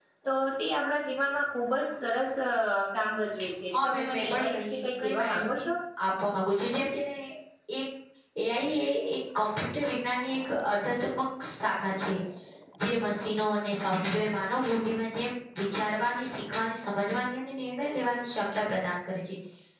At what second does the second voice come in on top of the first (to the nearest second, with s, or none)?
4 s